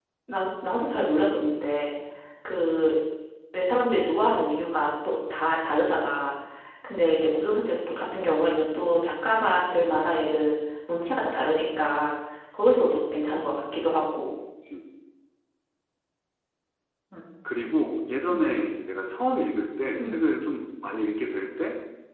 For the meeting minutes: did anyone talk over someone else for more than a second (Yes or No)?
No